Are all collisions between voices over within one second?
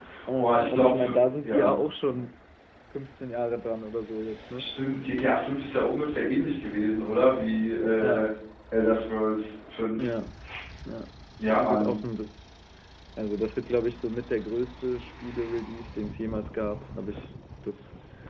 No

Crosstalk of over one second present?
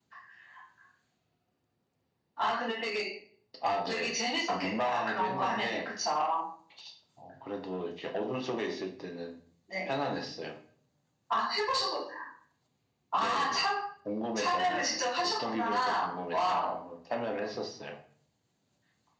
Yes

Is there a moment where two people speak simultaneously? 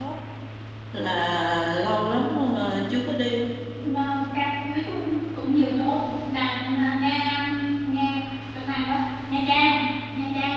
No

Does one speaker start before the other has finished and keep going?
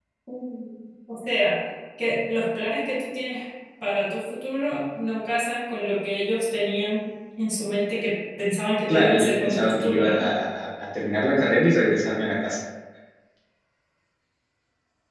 Yes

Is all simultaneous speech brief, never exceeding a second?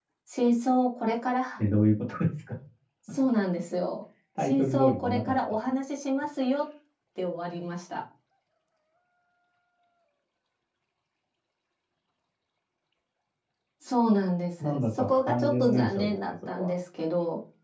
No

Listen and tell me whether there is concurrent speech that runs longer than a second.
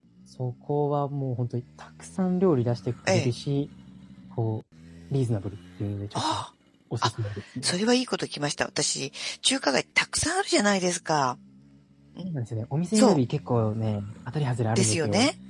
No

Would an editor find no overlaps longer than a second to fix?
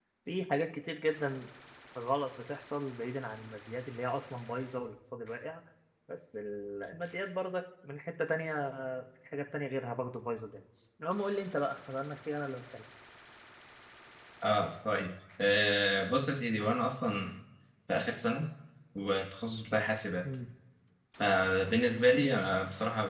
Yes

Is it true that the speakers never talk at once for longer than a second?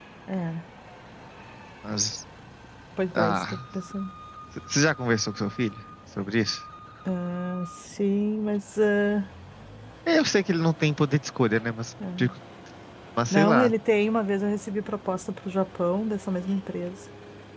Yes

